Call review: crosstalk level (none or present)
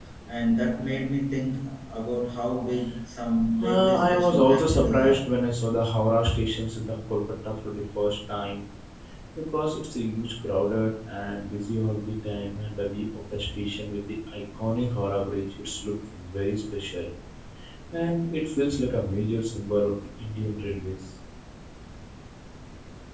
present